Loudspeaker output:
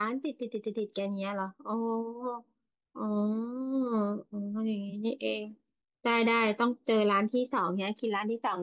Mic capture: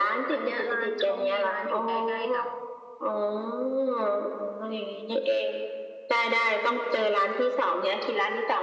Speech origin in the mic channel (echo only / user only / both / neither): both